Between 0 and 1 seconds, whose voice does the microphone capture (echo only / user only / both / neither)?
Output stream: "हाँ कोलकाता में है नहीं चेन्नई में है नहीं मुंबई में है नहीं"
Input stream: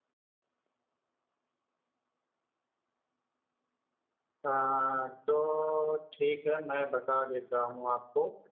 neither